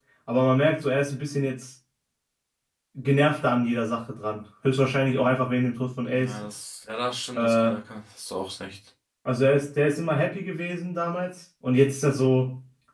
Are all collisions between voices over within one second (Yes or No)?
Yes